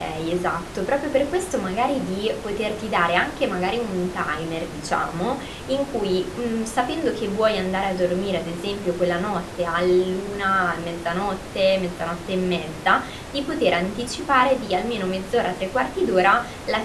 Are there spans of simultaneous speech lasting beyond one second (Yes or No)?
No